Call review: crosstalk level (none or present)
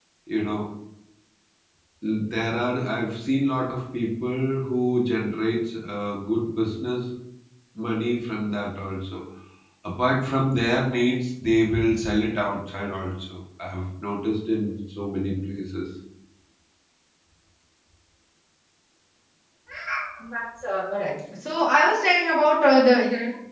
none